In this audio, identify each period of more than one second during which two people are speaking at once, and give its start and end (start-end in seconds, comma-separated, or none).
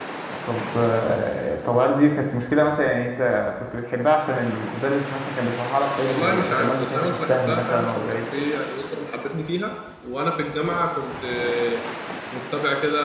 6.0-8.2